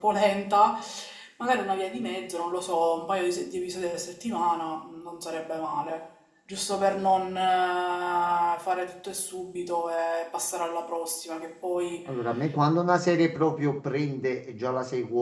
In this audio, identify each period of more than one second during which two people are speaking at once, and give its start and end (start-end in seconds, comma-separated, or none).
none